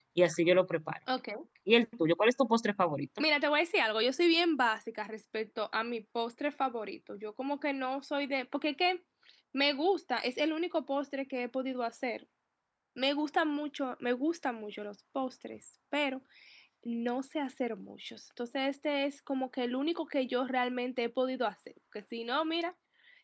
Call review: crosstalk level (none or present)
none